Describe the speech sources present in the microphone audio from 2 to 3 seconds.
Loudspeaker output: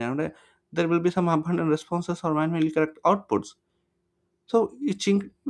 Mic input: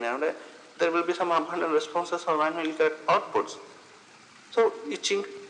echo only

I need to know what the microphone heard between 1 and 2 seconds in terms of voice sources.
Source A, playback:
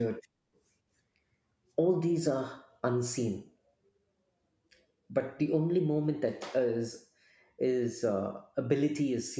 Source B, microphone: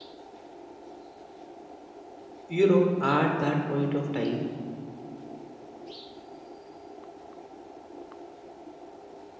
neither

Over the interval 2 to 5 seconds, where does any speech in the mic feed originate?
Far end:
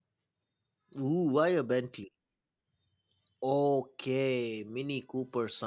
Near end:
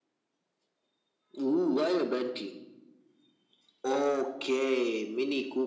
echo only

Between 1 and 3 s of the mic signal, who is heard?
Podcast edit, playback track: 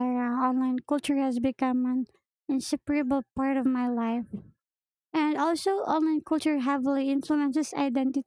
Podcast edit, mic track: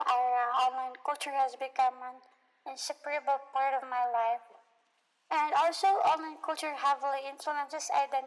echo only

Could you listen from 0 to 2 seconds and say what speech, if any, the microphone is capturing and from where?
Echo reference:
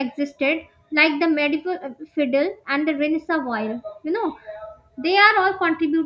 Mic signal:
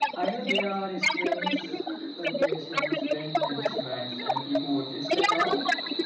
both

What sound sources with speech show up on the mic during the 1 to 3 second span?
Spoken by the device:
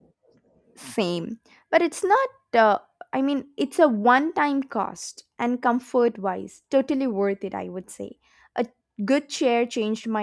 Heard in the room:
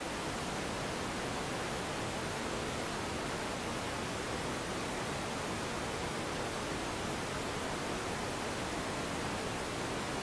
neither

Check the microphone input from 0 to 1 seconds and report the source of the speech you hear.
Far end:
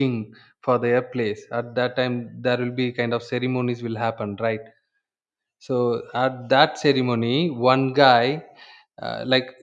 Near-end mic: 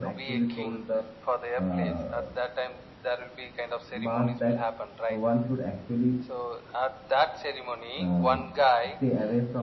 both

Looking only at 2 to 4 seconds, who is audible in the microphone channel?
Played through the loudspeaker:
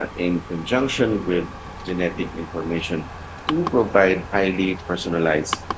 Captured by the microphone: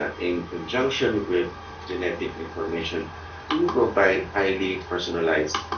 echo only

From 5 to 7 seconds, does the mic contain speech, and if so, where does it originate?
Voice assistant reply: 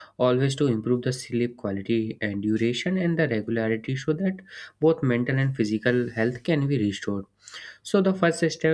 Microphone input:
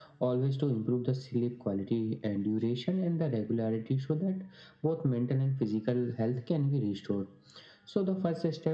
echo only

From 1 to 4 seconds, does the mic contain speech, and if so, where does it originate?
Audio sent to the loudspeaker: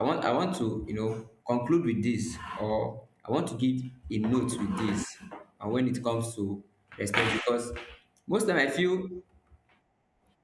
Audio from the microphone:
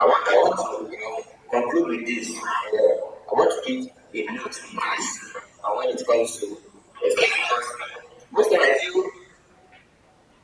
echo only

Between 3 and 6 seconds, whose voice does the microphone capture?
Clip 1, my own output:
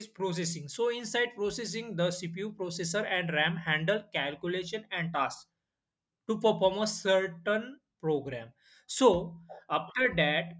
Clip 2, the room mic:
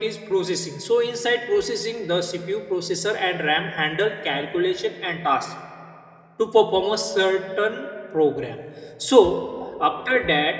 echo only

